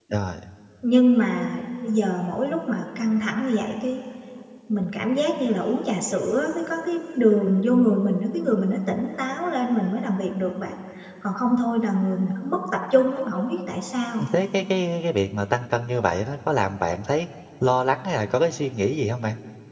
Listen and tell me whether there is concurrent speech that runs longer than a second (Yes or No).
No